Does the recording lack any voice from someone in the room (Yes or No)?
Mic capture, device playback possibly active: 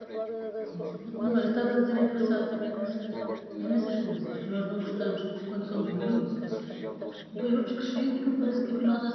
No